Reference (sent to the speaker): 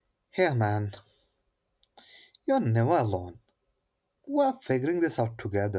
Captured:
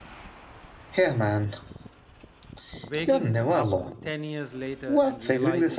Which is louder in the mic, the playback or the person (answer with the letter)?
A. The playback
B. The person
A